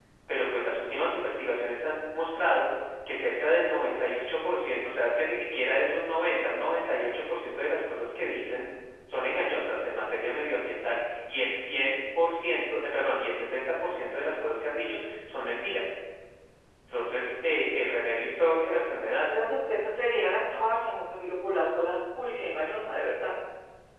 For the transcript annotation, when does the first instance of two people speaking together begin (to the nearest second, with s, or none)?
none